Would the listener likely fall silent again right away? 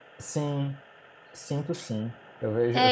Yes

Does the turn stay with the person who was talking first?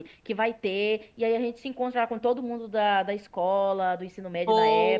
Yes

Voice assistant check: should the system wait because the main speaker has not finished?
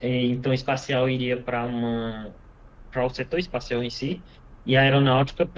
Yes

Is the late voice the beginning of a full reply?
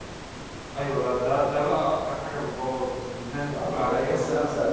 Yes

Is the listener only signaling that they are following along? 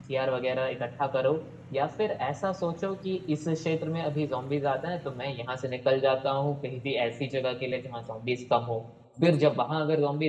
Yes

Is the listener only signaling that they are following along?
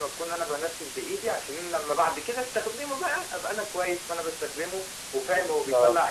Yes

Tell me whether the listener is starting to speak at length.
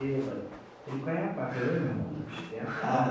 Yes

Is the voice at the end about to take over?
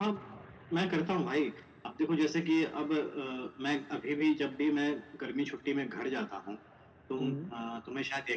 No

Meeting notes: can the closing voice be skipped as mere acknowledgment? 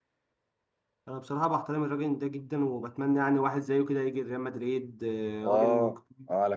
No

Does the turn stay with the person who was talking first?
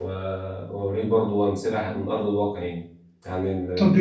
No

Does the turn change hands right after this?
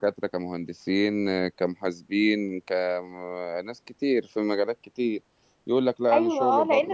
Yes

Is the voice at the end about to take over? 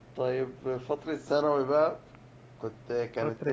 Yes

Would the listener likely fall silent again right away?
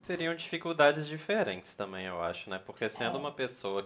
Yes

